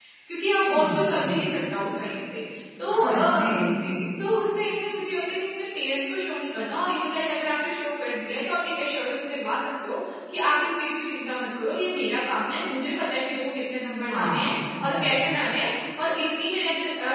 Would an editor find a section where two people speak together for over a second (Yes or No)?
Yes